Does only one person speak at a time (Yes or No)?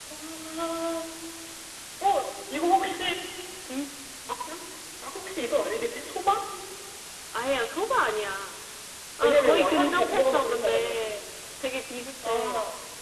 No